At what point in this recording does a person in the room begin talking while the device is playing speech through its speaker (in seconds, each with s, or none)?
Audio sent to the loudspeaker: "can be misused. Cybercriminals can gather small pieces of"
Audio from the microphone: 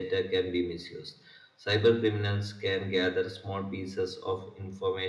none